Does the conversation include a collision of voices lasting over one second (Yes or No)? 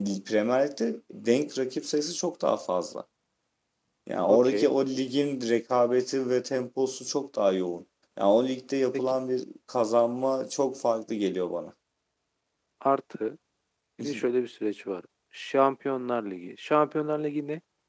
No